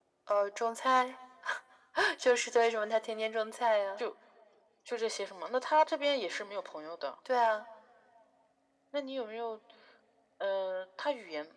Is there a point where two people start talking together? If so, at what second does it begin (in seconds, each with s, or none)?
none